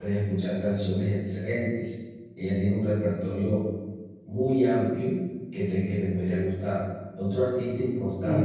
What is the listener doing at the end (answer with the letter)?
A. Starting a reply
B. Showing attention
A